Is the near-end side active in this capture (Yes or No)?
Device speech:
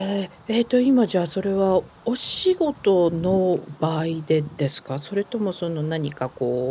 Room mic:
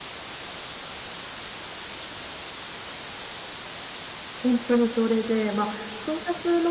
Yes